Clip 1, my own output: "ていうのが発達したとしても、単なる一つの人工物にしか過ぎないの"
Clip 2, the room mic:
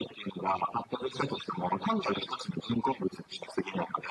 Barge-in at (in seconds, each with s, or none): none